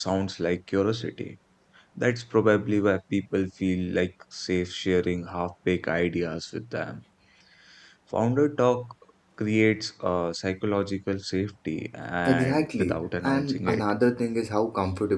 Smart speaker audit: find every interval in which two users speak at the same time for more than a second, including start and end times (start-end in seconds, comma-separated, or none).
12.3-13.8